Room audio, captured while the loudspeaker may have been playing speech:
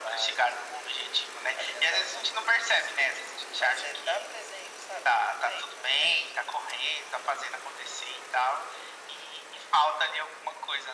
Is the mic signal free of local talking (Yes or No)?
Yes